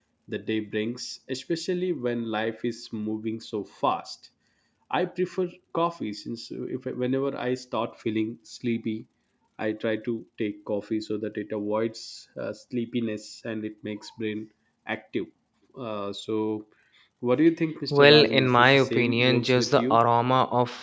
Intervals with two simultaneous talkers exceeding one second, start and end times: 17.9-20.0

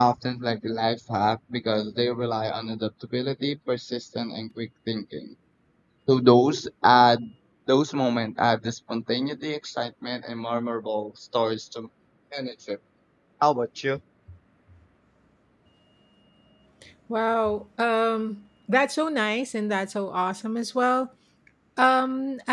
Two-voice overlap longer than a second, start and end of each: none

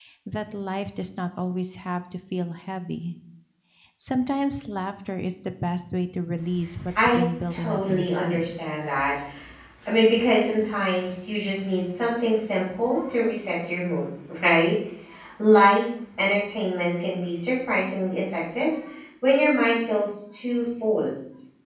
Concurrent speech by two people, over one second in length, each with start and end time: 7.0-8.5

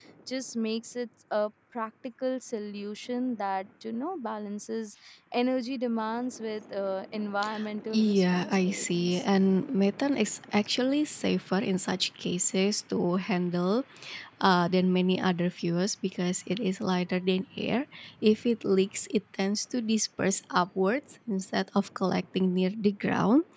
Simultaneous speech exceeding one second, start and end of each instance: 7.9-9.2

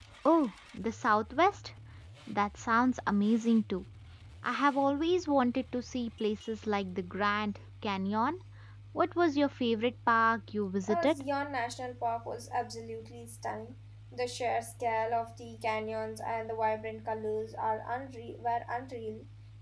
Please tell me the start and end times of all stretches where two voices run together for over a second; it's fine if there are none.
none

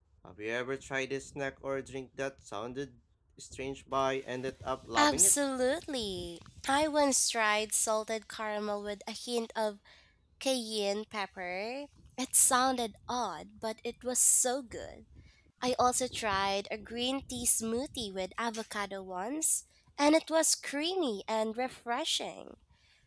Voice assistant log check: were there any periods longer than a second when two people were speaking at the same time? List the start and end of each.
none

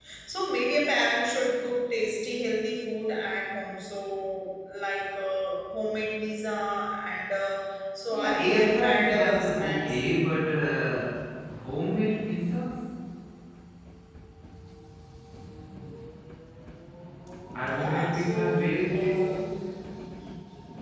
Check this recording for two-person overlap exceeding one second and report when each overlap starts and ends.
8.1-10.0, 17.8-19.4

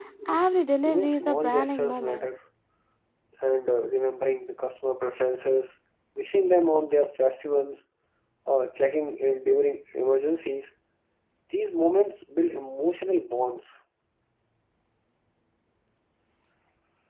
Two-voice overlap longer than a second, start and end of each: 0.8-2.3

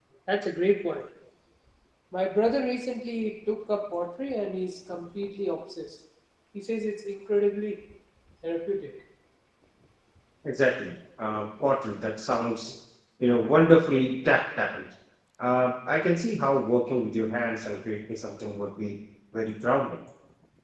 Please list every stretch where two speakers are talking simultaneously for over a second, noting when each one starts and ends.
none

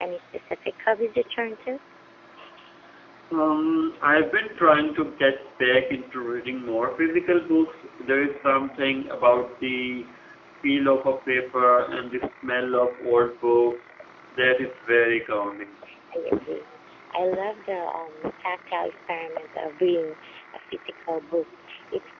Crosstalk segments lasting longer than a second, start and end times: none

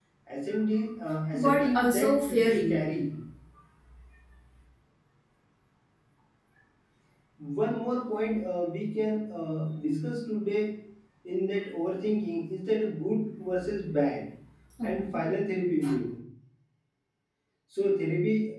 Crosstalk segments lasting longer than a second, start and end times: 1.3-2.9

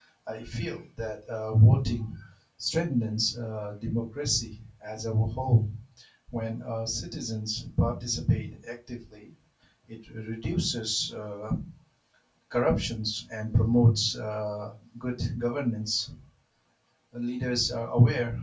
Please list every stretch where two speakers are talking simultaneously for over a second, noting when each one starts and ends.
none

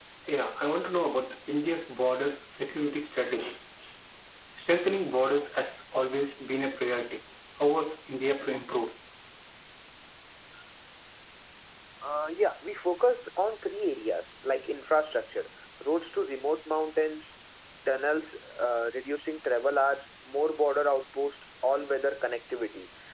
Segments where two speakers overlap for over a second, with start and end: none

